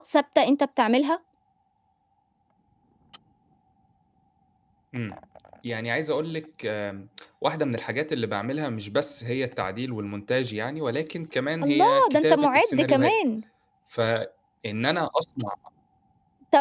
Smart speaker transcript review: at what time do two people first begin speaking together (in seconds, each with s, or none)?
11.6 s